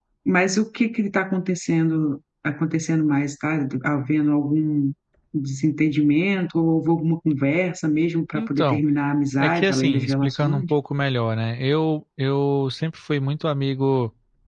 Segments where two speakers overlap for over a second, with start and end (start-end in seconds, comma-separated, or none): 9.4-10.6